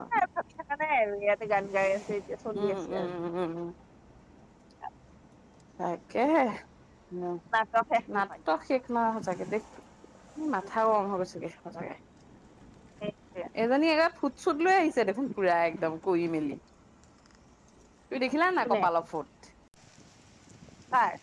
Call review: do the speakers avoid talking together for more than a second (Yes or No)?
Yes